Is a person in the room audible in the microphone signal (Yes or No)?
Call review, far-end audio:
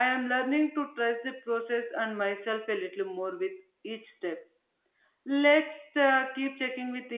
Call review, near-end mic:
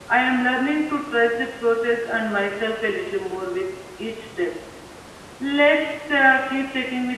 No